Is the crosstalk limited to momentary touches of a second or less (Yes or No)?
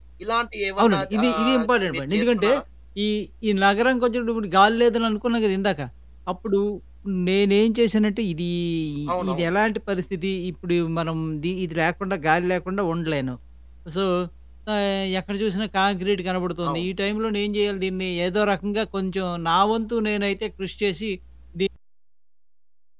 No